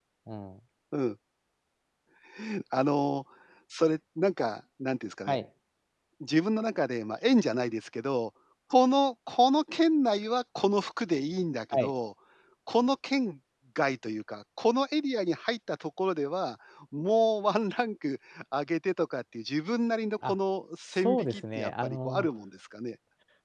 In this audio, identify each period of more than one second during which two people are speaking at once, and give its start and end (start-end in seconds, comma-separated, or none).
20.9-22.3